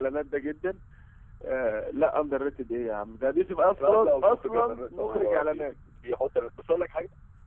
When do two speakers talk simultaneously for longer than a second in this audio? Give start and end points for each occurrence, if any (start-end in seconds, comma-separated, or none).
3.8-5.7